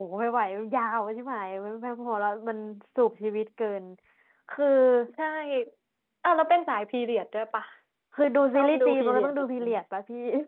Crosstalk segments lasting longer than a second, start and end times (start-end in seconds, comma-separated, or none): 8.5-9.8